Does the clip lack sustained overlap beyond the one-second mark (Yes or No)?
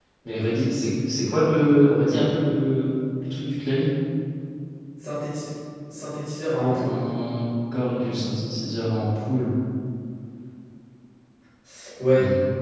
Yes